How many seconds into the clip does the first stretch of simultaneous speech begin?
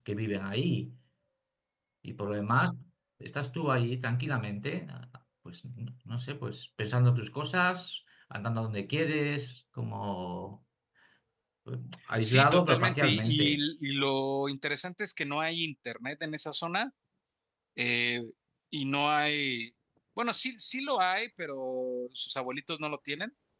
12.2 s

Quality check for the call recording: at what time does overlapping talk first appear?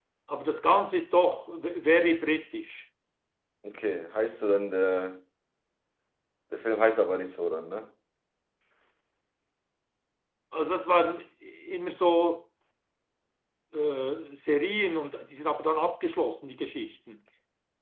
none

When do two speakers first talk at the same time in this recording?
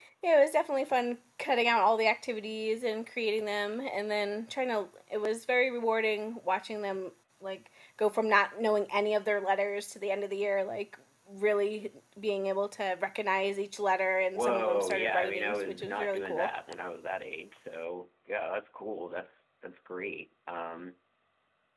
14.4 s

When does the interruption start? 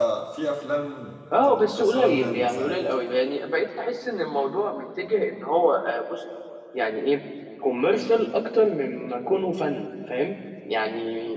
1.3 s

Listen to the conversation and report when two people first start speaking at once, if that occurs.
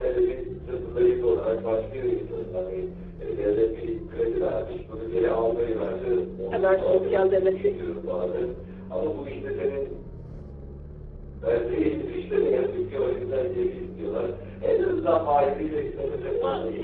6.5 s

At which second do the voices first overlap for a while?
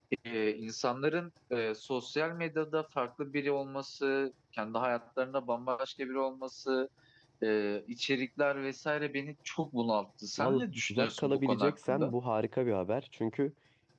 10.4 s

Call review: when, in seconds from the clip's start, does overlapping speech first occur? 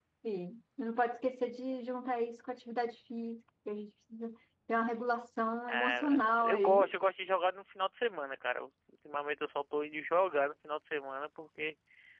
5.7 s

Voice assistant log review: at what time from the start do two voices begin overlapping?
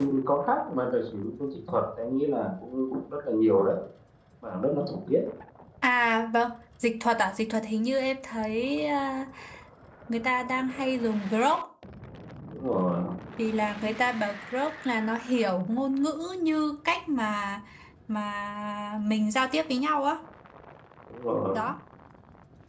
none

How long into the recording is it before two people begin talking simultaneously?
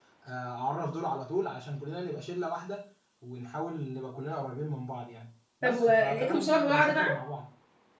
5.6 s

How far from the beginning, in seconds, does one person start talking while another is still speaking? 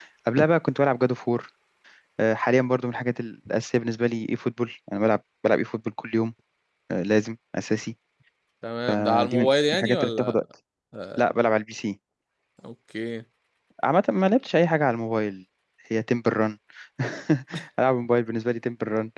8.9 s

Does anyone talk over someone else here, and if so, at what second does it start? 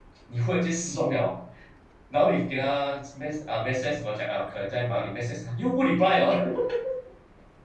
none

